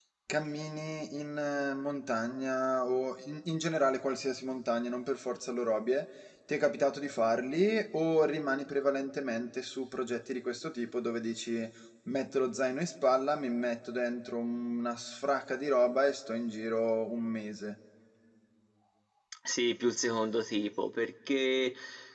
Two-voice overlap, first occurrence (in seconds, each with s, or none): none